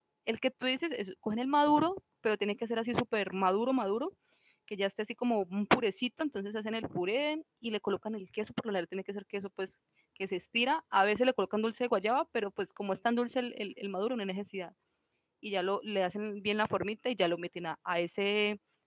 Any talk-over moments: No

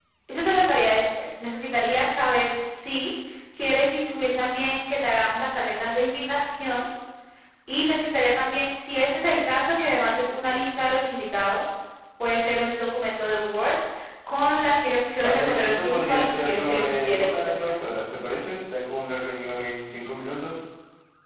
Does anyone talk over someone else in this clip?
Yes, from 15.2 s

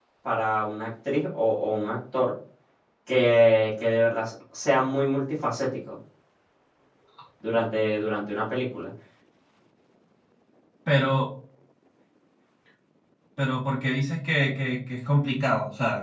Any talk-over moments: No

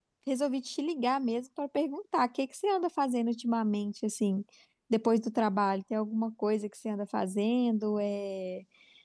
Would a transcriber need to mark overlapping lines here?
No

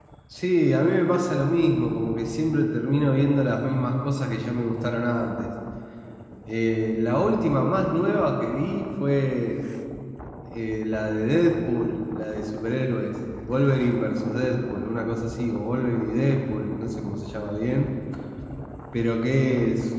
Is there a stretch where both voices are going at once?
No

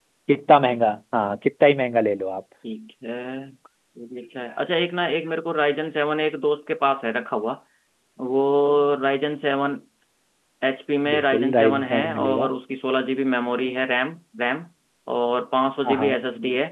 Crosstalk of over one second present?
Yes, from 11.1 s

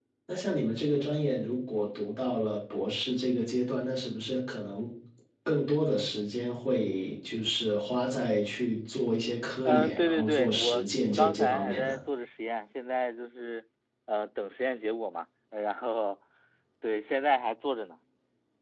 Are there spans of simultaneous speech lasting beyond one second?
Yes, from 9.7 s

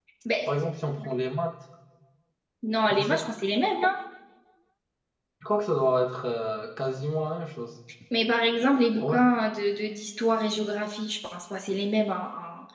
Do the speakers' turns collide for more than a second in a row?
No

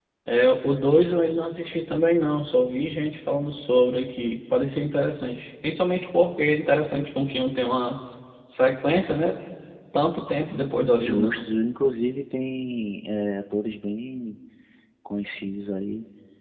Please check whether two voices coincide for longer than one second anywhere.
No

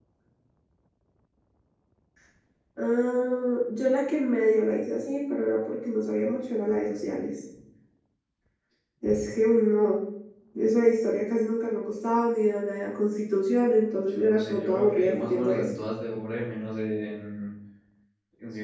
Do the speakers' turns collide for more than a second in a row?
Yes, from 14.1 s

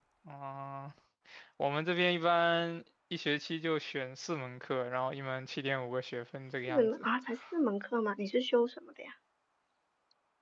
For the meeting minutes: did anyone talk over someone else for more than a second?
No

